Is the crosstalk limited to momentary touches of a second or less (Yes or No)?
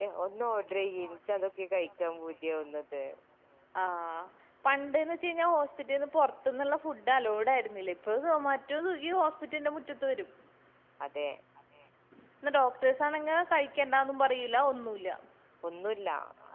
Yes